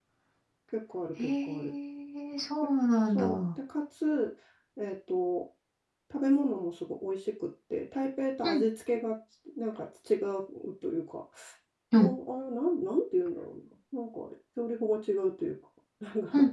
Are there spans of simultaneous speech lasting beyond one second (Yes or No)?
No